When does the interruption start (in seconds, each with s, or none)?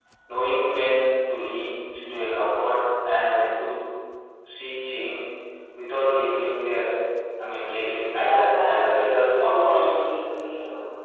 8.1 s